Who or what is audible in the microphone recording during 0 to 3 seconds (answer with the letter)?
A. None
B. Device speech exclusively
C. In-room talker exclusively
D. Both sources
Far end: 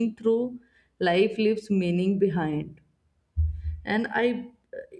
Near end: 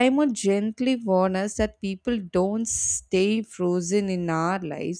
C